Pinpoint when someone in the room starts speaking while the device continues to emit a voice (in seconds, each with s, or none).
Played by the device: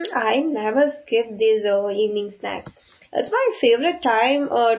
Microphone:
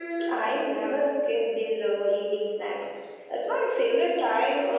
none